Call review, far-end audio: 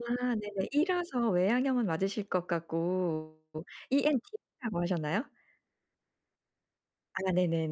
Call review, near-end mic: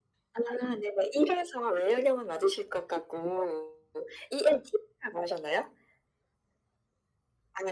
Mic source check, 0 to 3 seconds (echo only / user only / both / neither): echo only